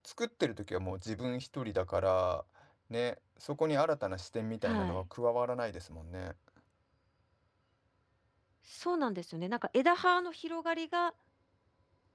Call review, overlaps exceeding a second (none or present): none